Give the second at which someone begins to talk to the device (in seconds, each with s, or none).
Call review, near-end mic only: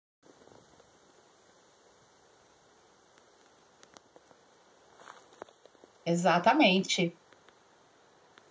6.0 s